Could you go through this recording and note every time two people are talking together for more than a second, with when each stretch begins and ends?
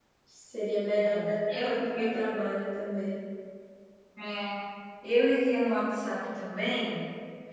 1.0-2.4

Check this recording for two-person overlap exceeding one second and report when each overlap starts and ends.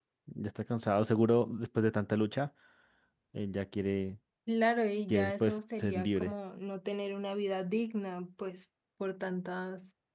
5.1-6.3

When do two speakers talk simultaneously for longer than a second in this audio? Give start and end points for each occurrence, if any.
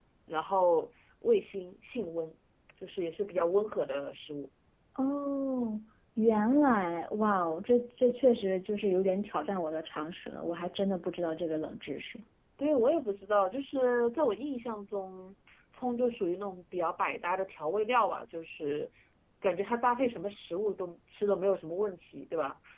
none

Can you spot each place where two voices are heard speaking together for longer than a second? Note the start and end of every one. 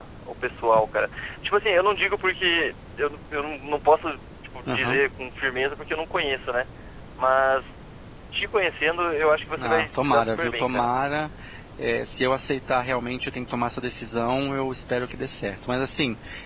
9.6-10.9

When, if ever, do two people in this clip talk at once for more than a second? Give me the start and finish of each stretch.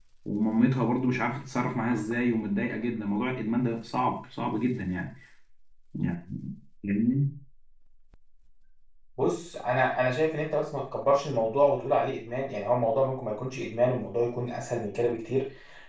none

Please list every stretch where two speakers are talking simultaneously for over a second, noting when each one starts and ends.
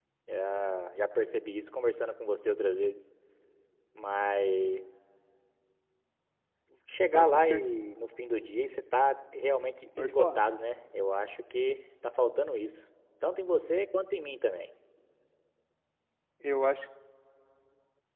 none

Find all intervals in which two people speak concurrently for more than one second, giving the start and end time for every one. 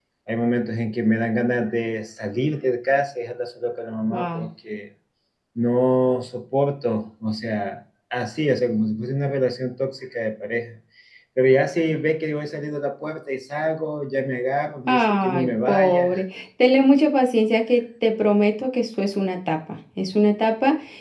14.9-16.1

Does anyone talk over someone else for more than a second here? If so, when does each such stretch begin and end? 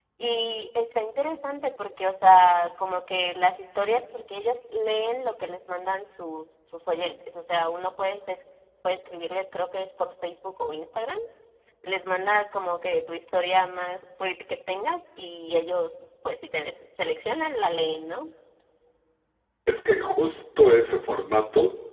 none

